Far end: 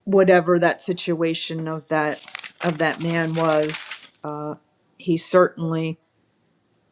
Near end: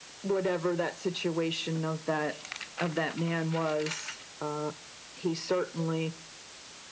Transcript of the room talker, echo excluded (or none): none